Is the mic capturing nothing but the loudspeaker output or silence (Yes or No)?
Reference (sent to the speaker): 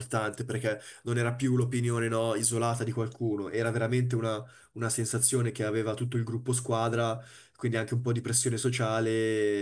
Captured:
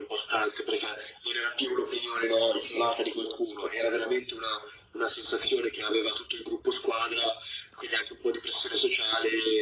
Yes